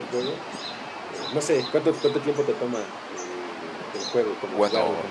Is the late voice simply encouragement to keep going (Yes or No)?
No